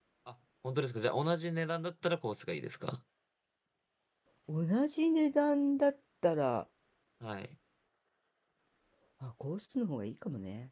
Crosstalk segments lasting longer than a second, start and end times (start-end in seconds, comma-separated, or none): none